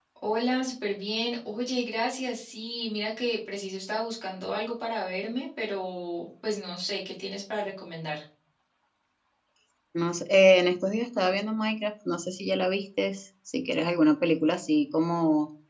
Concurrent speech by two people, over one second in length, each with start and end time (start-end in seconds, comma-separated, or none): none